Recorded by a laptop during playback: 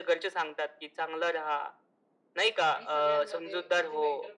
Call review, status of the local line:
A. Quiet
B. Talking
B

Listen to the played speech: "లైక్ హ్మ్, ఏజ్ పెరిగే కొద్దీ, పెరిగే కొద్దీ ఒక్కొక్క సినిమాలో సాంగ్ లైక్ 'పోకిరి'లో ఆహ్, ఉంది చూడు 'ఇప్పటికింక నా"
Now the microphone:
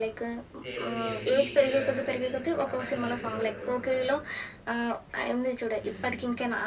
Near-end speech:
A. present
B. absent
A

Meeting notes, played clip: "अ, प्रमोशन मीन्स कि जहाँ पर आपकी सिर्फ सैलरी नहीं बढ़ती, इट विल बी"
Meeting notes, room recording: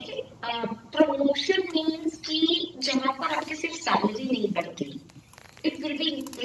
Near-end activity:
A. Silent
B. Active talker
A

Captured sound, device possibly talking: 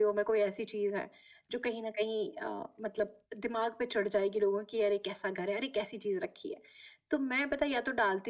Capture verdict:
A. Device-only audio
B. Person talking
A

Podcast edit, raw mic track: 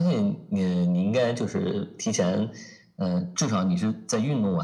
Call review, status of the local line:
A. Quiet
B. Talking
A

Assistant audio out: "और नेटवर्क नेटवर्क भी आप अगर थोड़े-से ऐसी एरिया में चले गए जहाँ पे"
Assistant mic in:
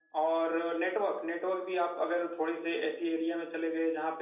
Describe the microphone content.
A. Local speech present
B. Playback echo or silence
B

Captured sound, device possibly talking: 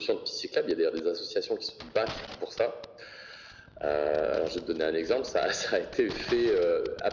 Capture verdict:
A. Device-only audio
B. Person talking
A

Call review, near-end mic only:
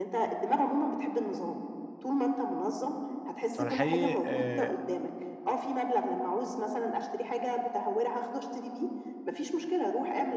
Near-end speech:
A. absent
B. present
B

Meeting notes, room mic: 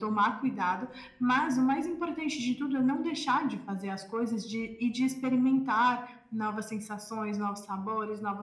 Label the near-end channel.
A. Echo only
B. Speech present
A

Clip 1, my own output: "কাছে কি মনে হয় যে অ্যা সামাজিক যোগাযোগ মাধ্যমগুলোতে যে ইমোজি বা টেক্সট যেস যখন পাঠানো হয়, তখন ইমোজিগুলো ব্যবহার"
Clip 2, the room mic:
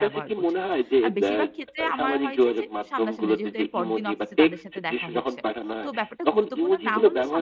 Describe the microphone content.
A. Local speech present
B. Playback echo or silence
A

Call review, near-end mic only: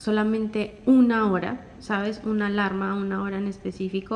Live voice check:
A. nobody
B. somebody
B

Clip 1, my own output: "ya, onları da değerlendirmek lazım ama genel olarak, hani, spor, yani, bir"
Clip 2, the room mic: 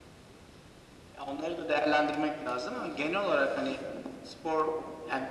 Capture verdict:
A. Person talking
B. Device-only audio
B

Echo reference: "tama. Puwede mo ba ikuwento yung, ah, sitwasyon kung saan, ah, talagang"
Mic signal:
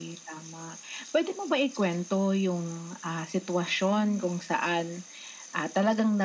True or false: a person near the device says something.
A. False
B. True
B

